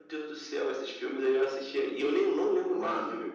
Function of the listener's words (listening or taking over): listening